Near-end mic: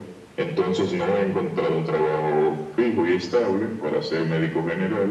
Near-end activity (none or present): none